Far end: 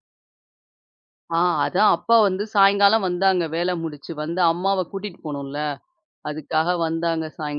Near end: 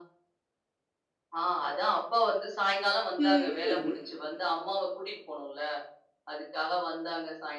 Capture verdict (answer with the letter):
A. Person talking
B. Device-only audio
A